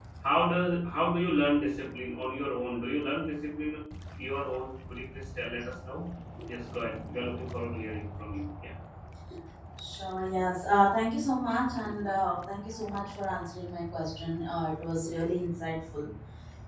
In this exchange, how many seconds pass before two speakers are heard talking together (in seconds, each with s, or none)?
none